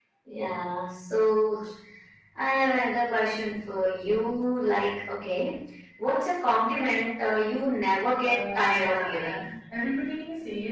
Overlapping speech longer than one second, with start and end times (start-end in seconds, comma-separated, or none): 8.2-9.4